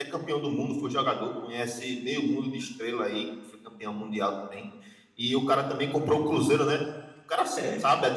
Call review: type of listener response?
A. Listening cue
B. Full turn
A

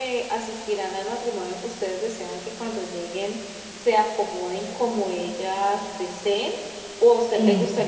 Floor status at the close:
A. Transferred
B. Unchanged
B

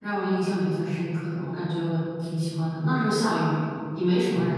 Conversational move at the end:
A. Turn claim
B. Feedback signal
A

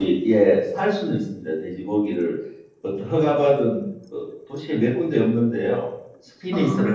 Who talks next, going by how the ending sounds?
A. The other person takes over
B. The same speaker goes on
B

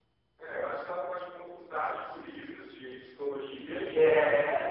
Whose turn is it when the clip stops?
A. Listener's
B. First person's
B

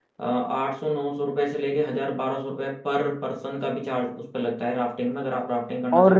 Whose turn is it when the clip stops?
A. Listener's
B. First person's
A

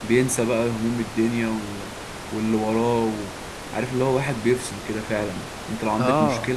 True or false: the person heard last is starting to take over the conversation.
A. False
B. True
A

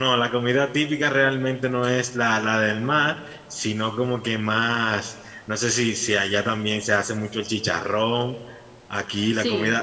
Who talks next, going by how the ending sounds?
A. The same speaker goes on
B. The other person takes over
A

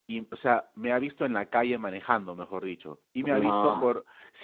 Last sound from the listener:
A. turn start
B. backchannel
B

